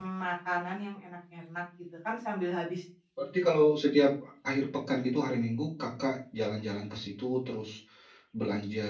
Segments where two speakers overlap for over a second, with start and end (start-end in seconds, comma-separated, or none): none